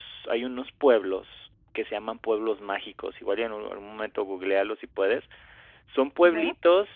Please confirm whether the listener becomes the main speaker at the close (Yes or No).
No